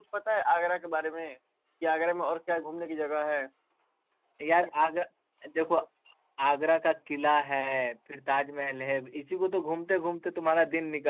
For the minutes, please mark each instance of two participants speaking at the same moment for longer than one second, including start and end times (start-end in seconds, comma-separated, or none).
none